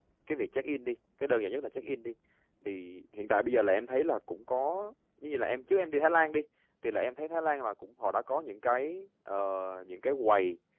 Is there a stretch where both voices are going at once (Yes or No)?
No